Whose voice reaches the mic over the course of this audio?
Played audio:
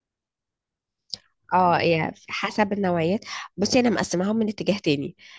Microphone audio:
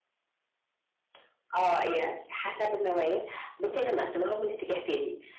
echo only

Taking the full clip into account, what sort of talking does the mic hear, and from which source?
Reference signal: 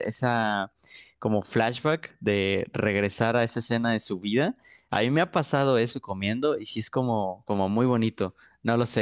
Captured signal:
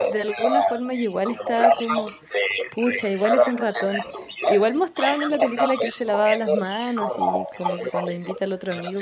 both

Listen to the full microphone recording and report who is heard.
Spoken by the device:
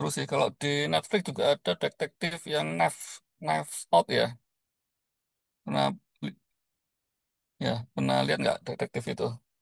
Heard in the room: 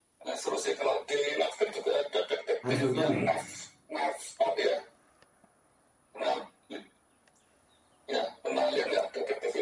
both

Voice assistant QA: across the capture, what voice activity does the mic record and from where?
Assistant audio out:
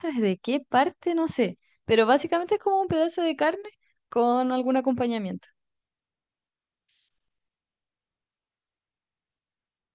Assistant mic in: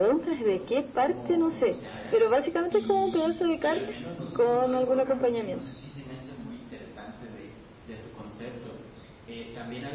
both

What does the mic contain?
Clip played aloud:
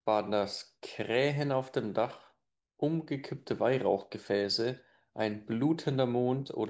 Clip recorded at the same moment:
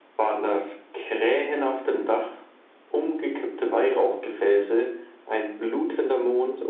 echo only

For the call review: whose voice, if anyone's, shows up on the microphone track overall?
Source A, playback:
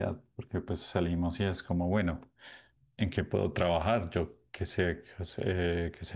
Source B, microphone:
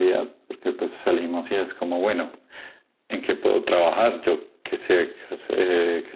echo only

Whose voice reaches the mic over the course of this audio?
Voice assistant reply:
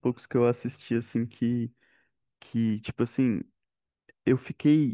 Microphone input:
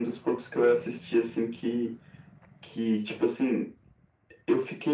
echo only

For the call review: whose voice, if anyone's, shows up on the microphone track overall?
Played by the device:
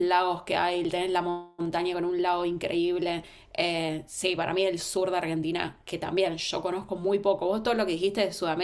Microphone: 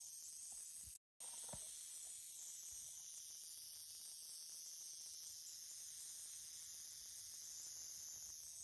neither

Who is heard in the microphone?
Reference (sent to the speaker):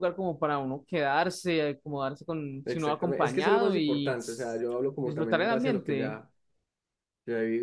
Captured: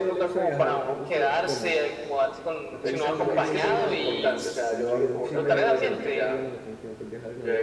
both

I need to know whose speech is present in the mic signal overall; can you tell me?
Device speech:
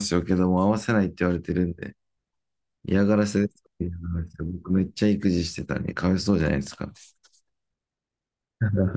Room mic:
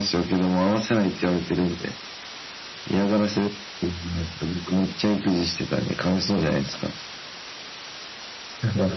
echo only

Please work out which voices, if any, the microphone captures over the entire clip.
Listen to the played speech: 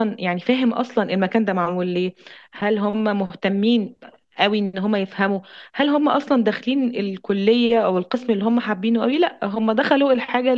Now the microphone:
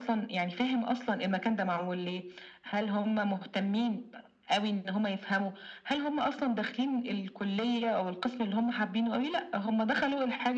echo only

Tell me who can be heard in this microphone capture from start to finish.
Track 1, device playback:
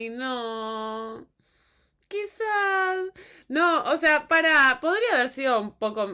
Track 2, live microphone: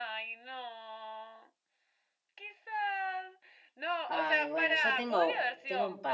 both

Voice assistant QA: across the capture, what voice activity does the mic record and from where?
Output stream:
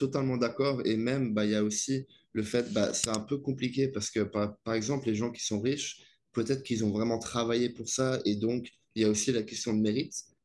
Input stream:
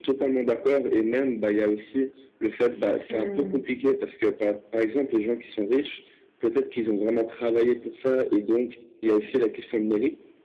both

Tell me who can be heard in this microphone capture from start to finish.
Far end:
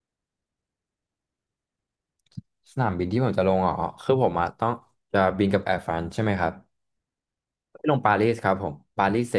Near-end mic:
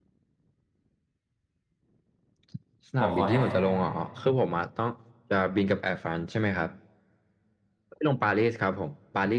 both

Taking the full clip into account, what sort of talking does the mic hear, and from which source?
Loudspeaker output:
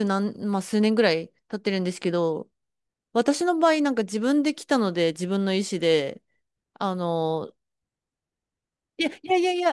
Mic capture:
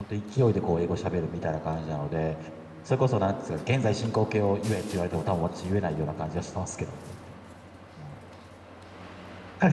user only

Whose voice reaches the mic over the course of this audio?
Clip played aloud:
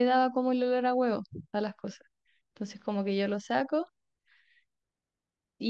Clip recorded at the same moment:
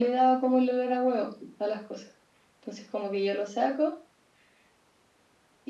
echo only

